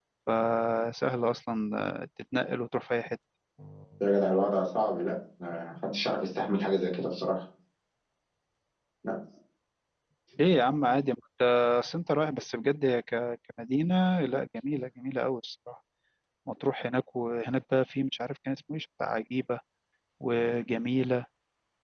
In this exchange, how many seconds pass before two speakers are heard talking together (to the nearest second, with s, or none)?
none